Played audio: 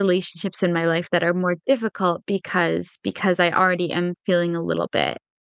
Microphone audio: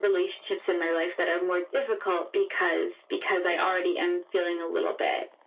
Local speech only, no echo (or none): Yeah,